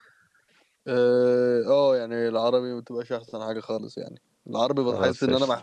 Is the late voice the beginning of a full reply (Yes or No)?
No